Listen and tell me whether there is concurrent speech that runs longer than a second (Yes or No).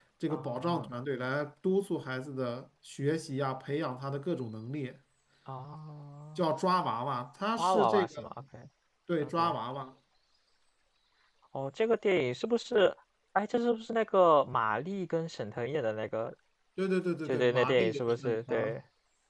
Yes